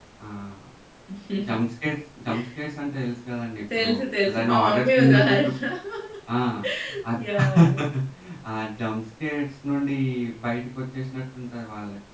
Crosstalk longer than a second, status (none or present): present